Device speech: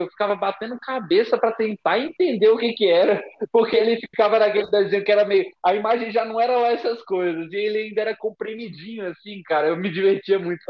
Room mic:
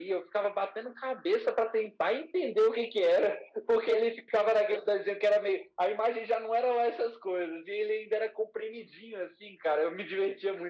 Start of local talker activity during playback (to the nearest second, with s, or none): none